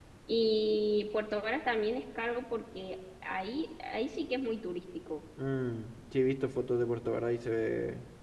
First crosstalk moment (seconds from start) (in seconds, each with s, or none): none